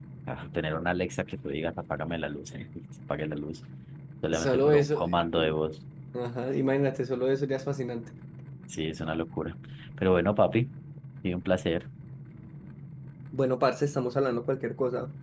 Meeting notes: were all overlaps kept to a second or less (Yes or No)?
No